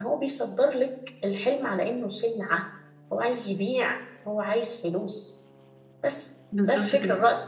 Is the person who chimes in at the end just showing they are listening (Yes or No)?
Yes